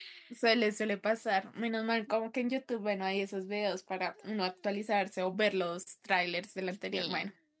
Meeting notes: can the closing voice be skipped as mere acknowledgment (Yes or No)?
No